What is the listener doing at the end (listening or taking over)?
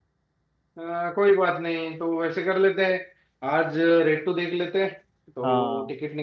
listening